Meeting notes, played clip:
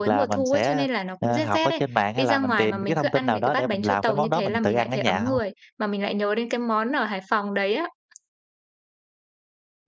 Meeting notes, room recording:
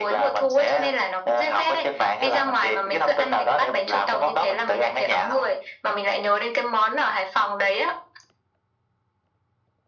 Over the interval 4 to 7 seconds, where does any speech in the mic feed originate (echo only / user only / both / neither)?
echo only